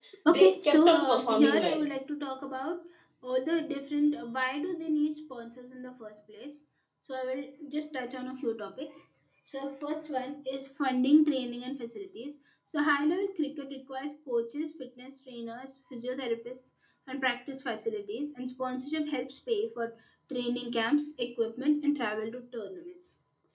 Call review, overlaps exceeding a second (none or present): present